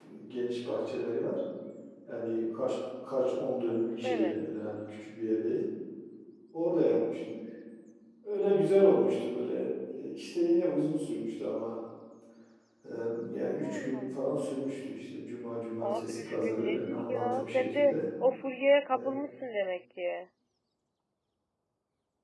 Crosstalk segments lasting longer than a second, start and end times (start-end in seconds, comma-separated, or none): 15.8-18.0